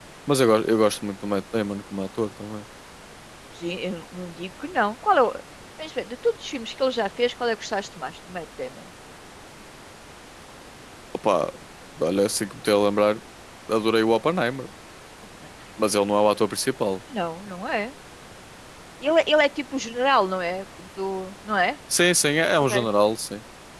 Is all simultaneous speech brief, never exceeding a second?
Yes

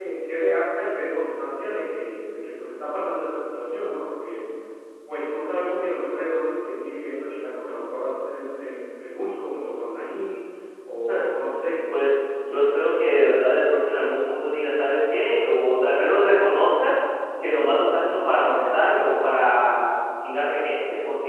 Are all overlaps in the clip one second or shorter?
Yes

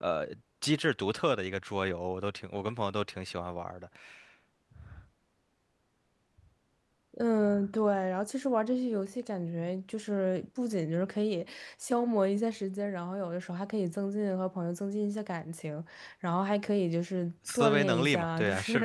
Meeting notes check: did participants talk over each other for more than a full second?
Yes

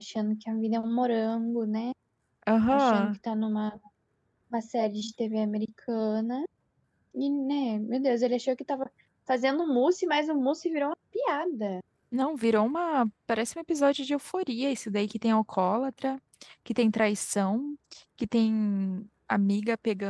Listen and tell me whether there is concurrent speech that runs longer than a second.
No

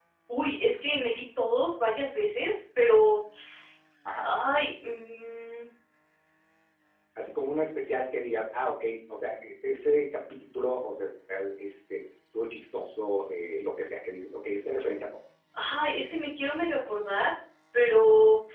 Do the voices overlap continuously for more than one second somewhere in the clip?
No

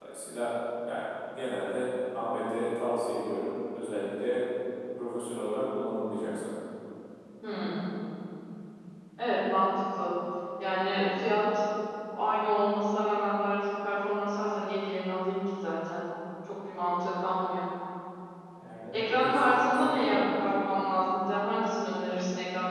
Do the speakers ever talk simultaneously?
Yes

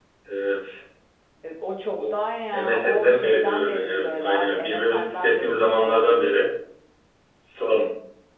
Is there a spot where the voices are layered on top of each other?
Yes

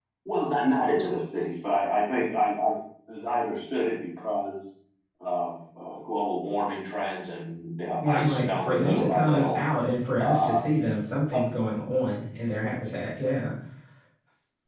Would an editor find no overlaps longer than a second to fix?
No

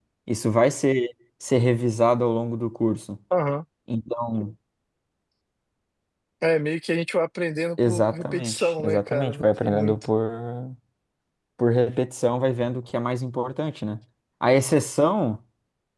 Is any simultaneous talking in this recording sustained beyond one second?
Yes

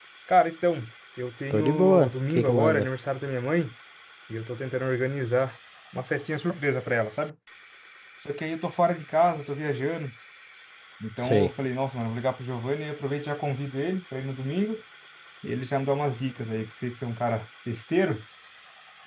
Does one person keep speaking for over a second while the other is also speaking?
Yes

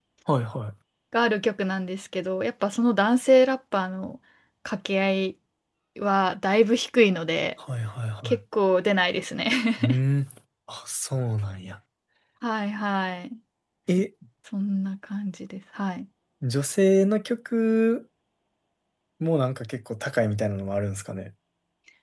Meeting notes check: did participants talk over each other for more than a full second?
No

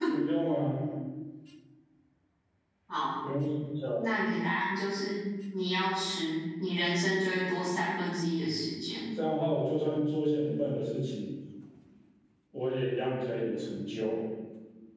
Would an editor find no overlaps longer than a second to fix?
Yes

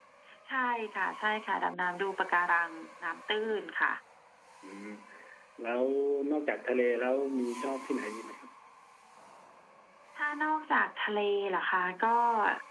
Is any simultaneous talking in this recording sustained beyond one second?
No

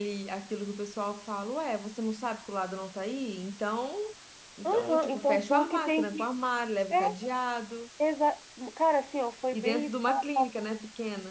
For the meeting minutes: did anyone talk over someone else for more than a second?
Yes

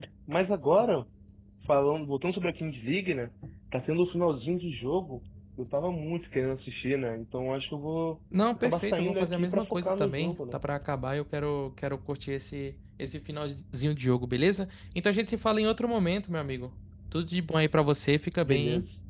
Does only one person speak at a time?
No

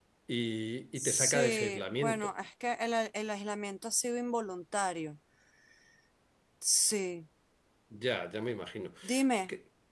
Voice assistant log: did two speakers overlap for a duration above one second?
Yes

